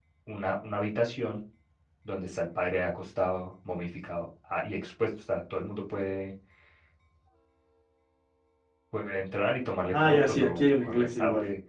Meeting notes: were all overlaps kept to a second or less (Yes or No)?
No